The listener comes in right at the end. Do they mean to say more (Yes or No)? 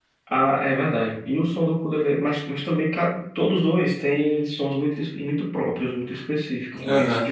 No